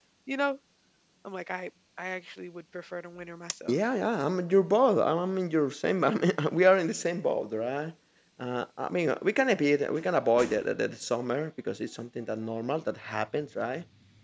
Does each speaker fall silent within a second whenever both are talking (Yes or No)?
Yes